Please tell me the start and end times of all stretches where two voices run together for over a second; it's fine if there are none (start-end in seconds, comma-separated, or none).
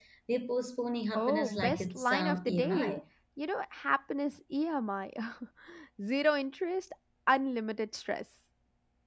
1.1-3.0